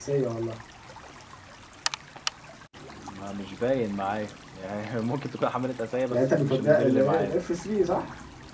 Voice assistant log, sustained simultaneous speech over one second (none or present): present